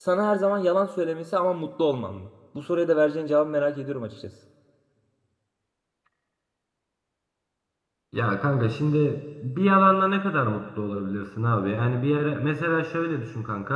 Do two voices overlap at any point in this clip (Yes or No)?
No